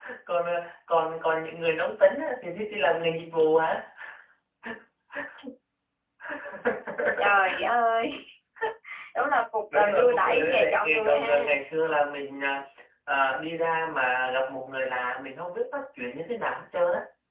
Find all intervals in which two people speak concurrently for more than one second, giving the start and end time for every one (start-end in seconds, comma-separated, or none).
9.7-11.5